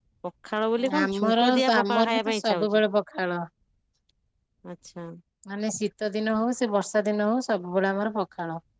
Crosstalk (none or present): present